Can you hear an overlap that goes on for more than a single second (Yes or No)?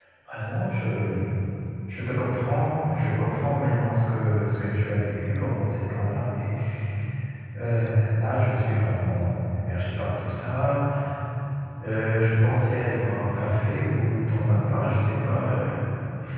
No